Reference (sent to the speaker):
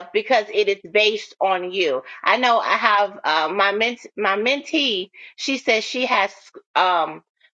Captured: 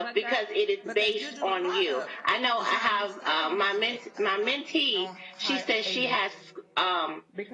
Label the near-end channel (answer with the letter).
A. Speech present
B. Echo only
A